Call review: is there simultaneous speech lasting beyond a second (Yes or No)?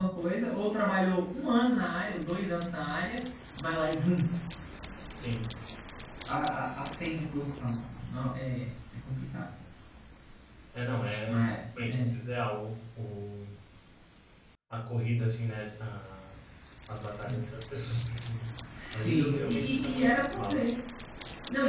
Yes